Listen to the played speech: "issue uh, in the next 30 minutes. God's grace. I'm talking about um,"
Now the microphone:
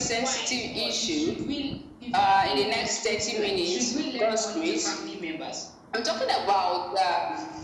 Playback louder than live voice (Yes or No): Yes